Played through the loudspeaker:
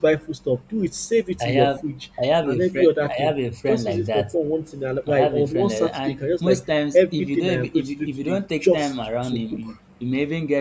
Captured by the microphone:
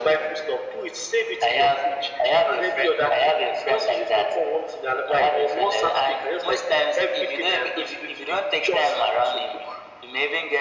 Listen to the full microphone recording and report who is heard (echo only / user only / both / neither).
echo only